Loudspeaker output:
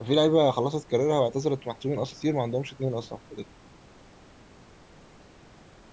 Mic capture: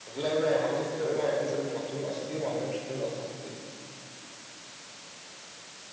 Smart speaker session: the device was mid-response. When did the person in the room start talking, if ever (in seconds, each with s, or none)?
none